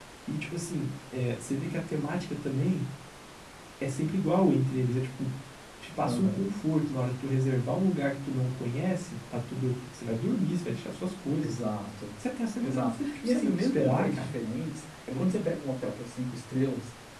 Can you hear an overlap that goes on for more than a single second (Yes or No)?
Yes